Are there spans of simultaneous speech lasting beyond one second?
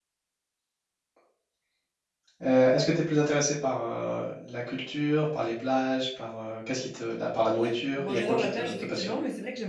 Yes, from 8.0 s

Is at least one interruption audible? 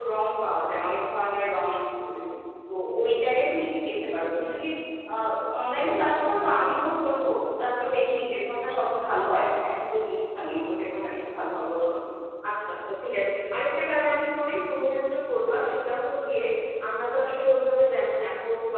No

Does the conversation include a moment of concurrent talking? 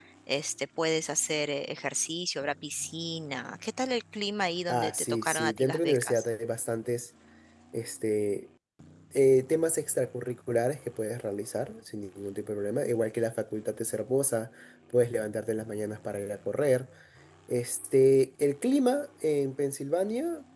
Yes, from 4.7 s

